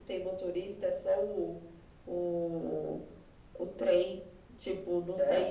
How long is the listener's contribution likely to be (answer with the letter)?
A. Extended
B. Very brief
B